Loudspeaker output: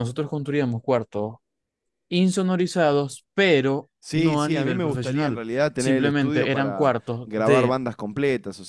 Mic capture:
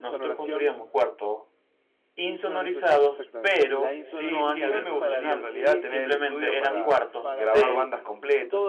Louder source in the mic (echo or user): echo